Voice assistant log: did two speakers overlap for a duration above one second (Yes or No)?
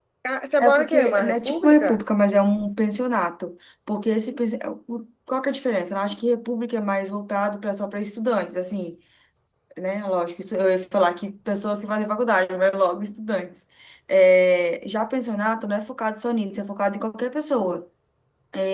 Yes